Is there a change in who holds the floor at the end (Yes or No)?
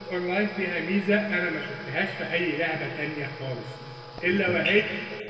No